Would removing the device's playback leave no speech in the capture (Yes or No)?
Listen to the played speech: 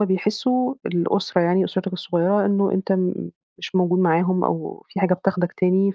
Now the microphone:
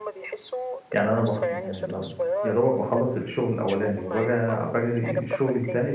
No